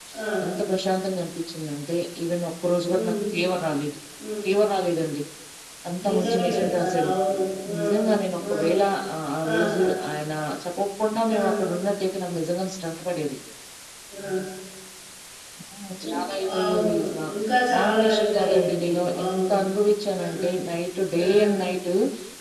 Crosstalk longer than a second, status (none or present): present